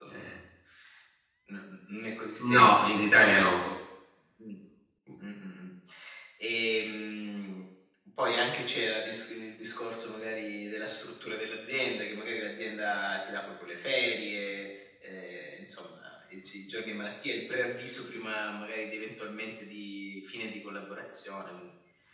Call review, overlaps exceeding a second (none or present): present